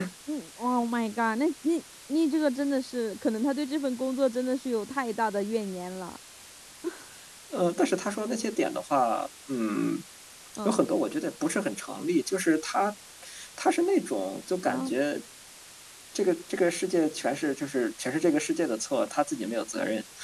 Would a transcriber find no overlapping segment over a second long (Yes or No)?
Yes